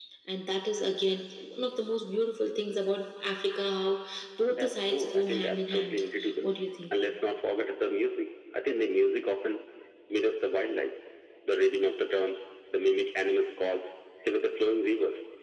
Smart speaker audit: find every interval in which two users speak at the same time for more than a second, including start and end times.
4.5-6.0

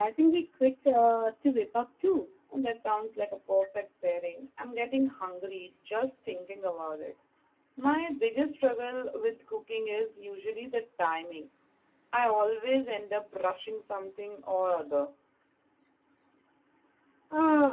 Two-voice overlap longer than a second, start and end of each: none

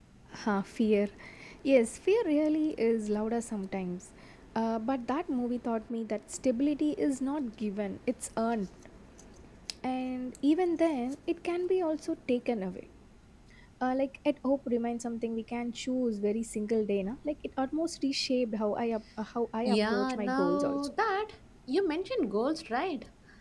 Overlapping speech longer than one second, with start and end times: 19.6-20.9

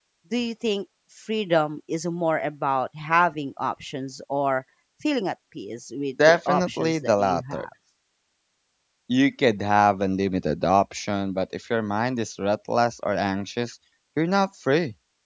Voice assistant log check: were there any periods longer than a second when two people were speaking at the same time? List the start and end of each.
6.3-7.7

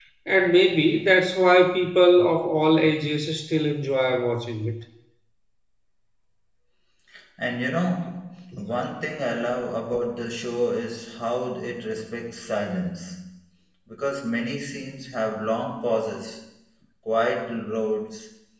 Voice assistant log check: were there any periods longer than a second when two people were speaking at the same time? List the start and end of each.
none

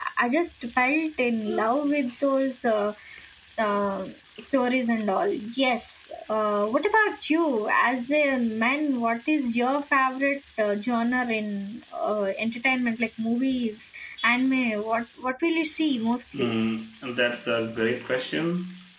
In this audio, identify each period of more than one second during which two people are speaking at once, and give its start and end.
none

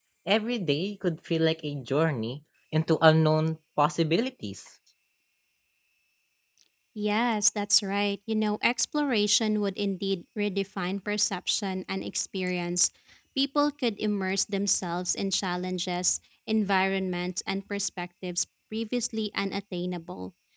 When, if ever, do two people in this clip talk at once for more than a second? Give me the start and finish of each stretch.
none

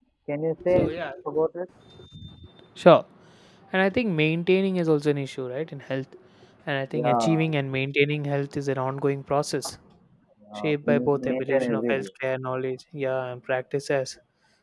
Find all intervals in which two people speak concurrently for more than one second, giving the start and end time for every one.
10.6-12.1

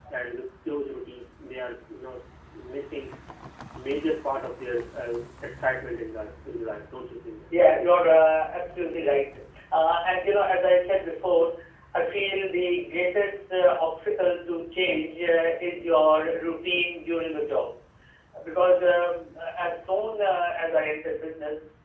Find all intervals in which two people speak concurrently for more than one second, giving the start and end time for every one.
none

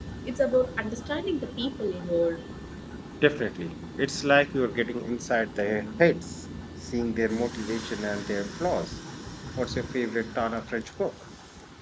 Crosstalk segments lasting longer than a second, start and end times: none

